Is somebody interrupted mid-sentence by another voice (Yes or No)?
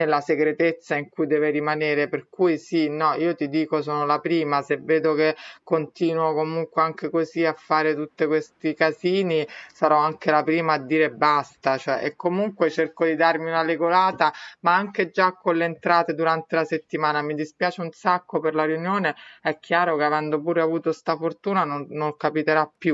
No